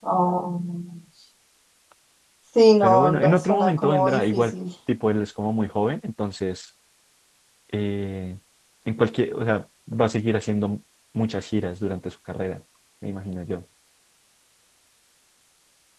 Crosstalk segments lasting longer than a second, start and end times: 2.8-4.5

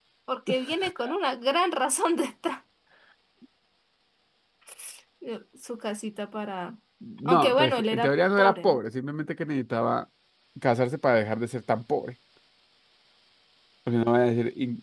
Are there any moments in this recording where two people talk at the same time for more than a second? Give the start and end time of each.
7.2-8.8

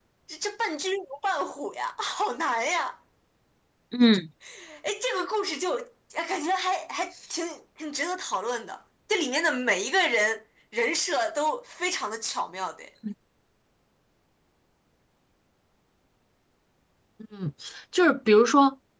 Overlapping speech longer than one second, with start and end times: none

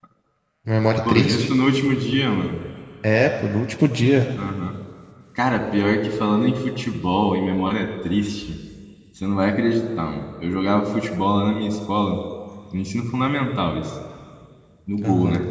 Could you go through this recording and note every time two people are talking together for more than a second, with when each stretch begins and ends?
none

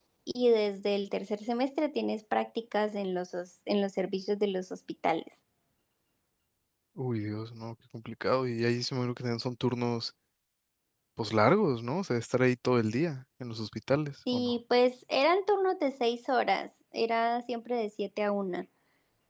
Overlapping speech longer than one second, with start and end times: none

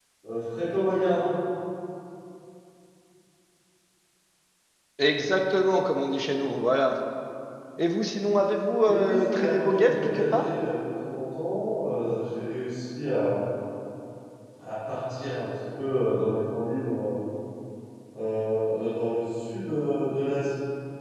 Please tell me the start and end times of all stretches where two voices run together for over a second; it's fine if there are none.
8.8-10.4

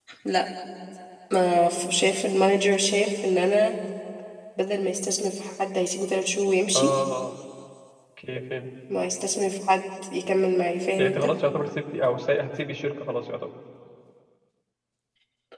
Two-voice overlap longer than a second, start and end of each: none

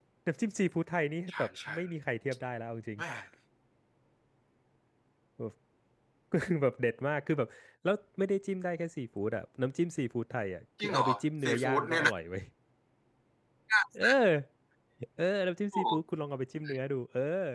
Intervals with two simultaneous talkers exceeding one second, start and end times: 10.8-12.1

